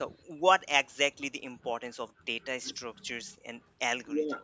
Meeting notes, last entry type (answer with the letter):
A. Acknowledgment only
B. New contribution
B